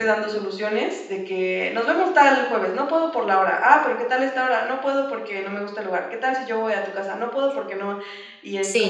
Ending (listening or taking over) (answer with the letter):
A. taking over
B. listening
A